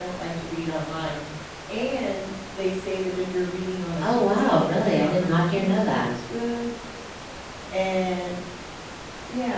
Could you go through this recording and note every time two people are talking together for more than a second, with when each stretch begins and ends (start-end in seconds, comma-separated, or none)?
4.0-6.0